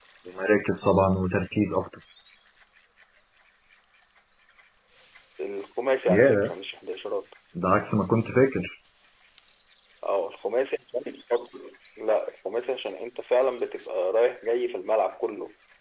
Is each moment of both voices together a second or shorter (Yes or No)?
Yes